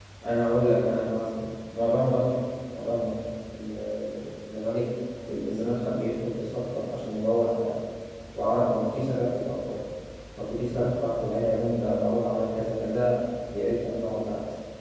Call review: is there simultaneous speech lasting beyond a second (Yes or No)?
No